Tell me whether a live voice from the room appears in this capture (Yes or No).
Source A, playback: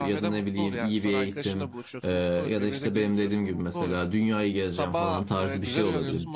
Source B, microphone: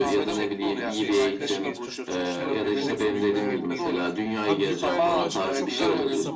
Yes